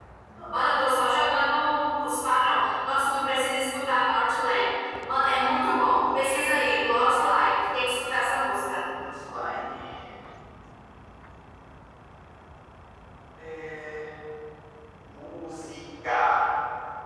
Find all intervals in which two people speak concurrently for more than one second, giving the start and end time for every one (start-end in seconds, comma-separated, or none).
none